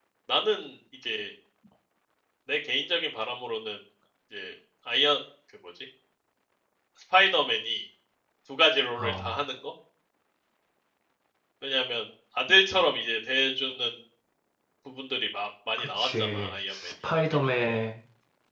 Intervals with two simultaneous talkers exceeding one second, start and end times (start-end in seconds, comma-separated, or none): 15.8-17.8